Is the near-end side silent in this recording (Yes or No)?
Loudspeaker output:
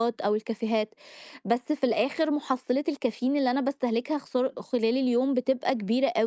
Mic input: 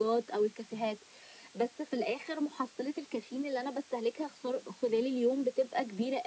Yes